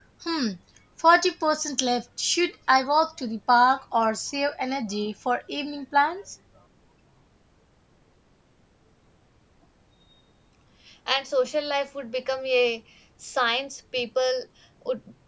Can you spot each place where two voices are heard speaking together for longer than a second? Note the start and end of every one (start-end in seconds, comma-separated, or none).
none